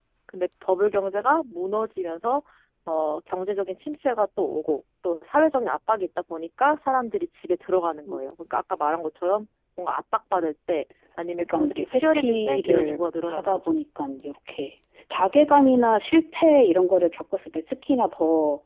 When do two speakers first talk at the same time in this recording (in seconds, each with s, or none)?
11.5 s